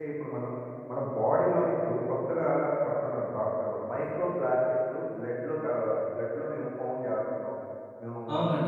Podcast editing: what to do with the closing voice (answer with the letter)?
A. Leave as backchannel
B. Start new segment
B